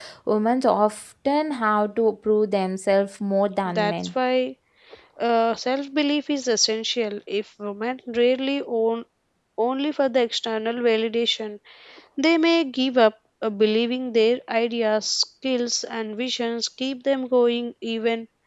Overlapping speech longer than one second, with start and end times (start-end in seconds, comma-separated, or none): none